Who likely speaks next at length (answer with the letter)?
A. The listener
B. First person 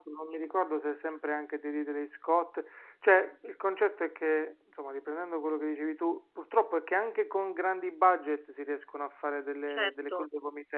A